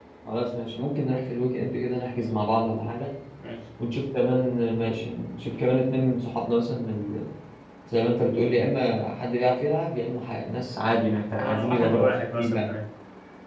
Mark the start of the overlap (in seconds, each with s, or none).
11.3 s